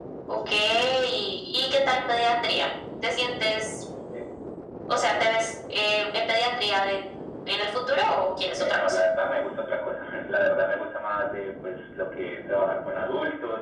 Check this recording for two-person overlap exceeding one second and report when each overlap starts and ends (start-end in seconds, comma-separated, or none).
none